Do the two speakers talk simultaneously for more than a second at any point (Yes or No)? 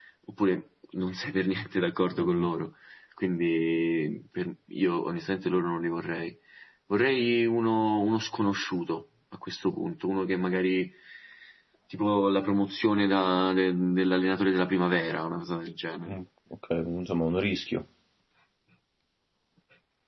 No